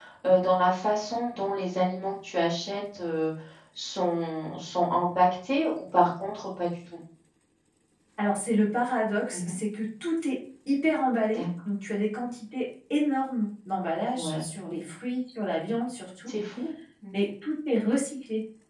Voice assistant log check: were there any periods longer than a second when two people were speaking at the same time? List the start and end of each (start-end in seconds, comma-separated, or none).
none